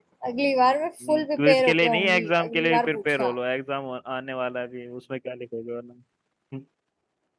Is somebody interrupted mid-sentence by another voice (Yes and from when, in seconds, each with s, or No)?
Yes, from 1.1 s